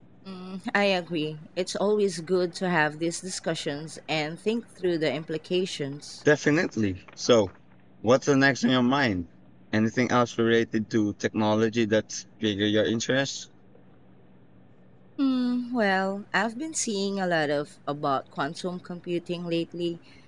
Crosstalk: none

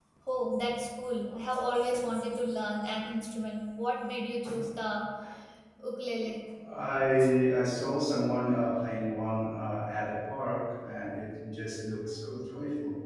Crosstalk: none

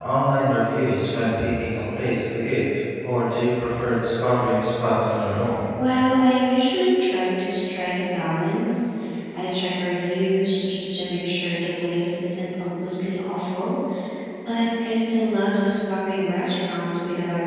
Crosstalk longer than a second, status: none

